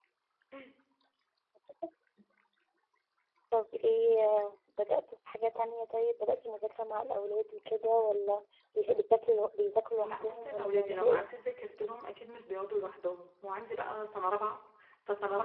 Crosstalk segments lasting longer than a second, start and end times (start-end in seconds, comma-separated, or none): 10.0-11.2